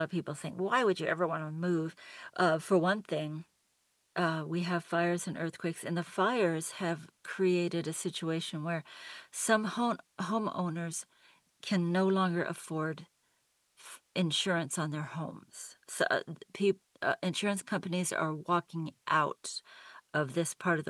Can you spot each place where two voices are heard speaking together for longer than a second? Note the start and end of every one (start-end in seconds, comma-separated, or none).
none